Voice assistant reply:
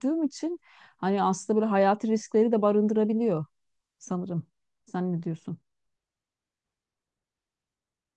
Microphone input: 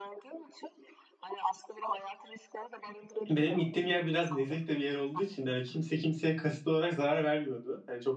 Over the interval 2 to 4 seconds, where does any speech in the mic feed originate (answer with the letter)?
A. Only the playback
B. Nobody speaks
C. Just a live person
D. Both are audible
D